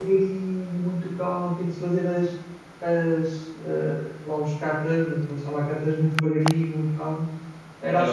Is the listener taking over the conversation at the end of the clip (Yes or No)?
Yes